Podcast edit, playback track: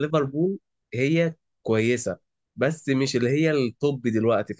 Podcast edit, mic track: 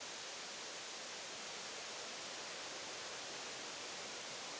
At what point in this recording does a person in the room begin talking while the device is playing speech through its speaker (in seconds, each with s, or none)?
none